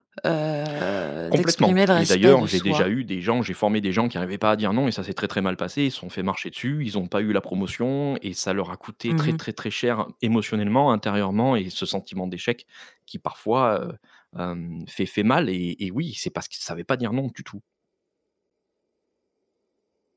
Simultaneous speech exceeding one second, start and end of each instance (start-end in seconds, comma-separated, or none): 1.3-2.9